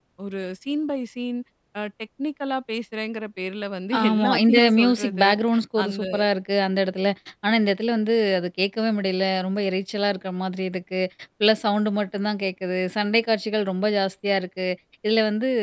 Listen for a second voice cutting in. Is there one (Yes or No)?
Yes